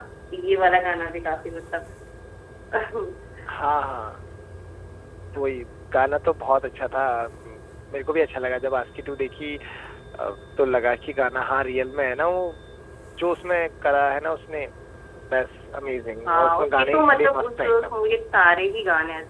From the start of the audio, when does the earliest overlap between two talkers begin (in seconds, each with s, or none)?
16.3 s